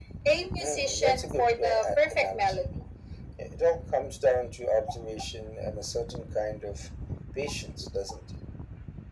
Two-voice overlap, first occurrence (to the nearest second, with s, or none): 1 s